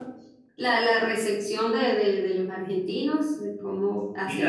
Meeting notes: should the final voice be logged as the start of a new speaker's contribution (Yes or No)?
Yes